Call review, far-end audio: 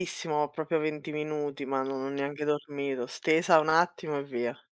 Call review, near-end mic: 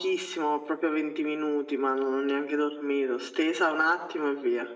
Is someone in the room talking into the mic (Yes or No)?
No